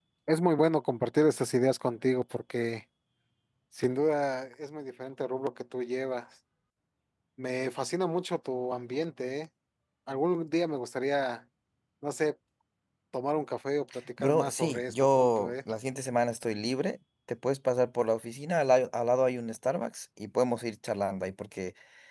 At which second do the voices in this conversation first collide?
14.2 s

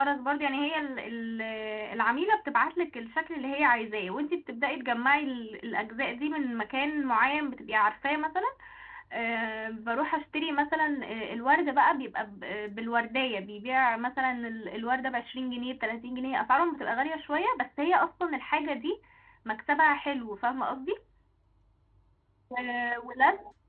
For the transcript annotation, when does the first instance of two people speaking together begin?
none

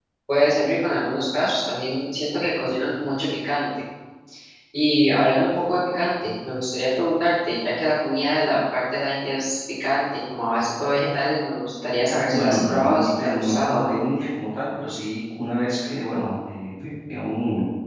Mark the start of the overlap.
12.3 s

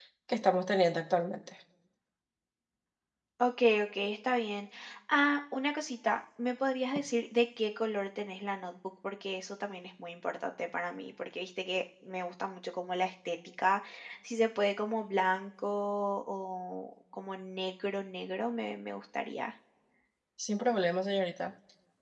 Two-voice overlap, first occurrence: none

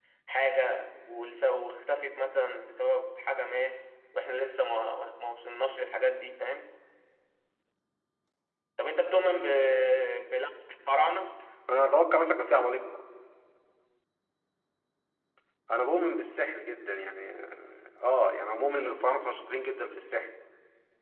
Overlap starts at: none

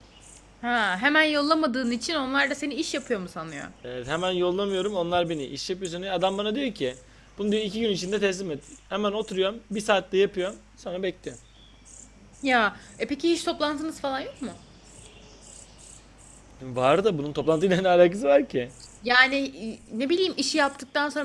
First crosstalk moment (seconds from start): none

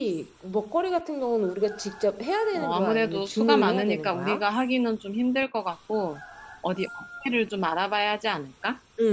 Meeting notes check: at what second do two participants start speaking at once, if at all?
2.5 s

